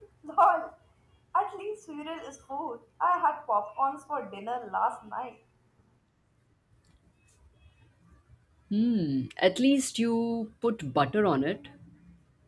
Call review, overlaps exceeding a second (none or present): none